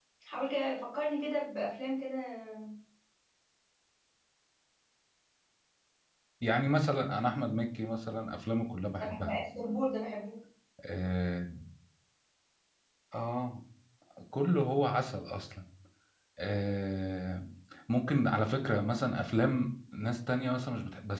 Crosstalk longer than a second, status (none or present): none